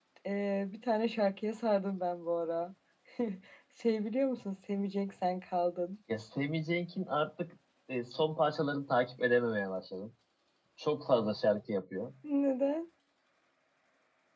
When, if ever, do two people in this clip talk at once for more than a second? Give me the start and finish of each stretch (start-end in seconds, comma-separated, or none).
none